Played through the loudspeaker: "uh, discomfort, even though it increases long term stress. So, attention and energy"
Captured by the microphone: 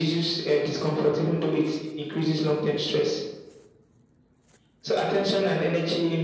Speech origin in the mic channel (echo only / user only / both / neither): echo only